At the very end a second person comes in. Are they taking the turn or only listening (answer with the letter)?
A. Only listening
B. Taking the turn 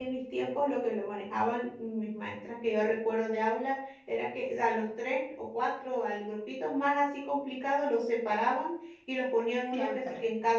A